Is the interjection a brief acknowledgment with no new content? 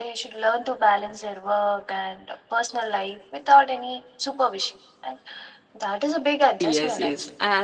No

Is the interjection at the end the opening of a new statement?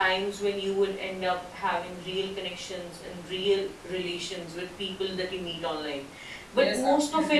Yes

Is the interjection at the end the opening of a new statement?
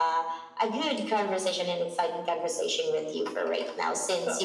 No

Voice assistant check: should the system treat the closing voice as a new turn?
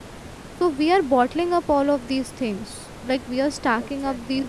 No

